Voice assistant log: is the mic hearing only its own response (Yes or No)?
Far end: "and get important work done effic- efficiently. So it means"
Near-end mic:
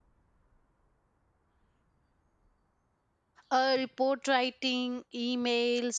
No